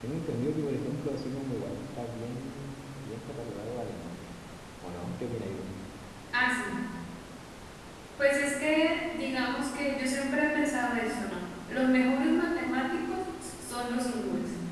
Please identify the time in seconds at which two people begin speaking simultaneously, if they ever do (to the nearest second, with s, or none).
none